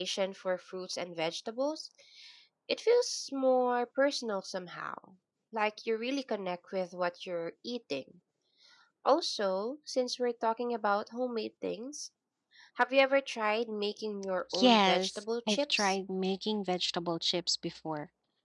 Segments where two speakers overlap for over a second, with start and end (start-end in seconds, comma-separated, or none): 14.6-16.0